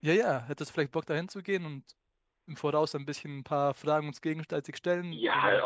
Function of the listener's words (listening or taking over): taking over